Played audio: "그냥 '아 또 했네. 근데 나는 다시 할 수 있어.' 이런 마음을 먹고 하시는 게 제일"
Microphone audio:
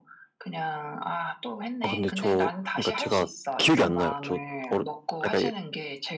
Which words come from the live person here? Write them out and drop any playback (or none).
아 근데 저 그러니까 제가 기억이 안 나요. 저 어르 그러니까